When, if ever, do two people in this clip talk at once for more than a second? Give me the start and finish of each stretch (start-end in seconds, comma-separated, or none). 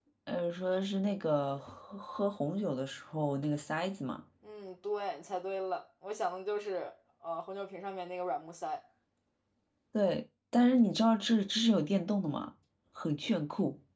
none